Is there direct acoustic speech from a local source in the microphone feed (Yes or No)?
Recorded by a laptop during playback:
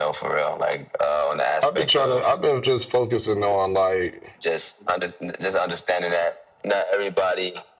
Yes